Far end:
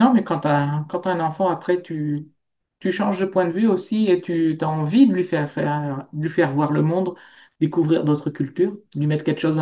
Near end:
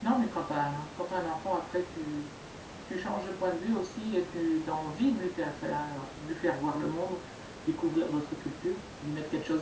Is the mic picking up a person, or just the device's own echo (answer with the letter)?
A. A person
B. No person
B